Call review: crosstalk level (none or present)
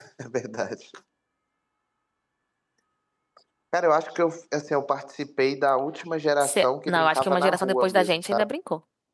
present